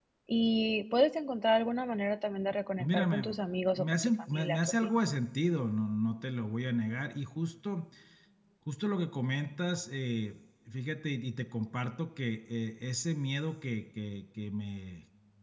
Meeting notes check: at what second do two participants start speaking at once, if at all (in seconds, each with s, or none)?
2.8 s